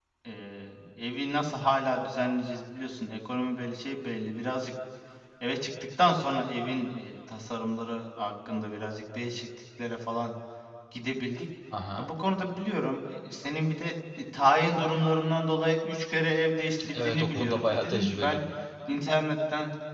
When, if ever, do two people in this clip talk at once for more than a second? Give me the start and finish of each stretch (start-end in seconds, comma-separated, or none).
16.9-18.4